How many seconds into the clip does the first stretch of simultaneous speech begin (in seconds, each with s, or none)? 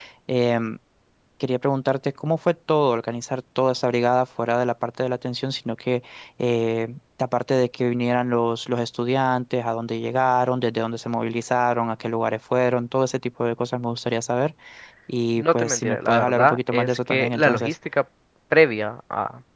15.4 s